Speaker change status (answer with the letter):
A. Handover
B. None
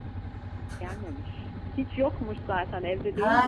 A